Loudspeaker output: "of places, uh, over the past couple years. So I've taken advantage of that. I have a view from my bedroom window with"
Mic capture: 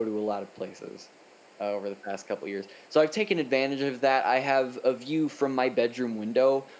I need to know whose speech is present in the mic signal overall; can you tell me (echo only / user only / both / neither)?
echo only